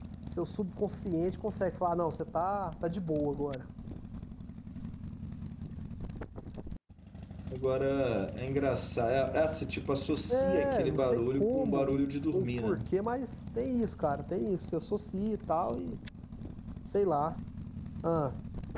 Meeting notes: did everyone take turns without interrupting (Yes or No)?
No